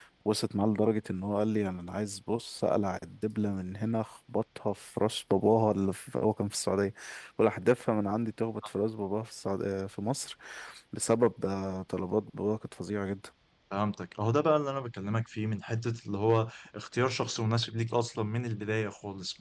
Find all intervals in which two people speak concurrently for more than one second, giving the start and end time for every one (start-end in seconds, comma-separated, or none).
none